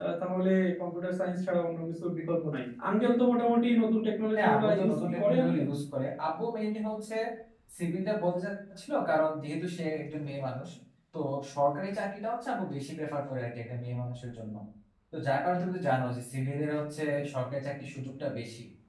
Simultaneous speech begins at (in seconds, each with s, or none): 4.4 s